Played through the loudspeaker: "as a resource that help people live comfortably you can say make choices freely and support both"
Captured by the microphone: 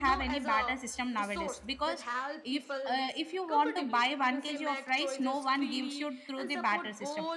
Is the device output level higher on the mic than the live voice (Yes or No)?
No